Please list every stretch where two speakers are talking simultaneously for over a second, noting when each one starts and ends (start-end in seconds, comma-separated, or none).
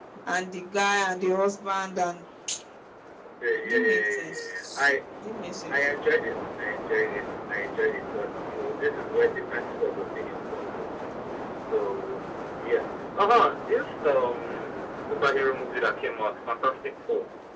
3.6-4.8